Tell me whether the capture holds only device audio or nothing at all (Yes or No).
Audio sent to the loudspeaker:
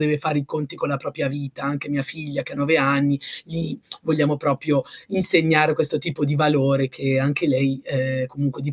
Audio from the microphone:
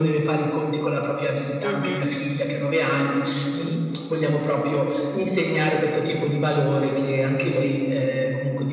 No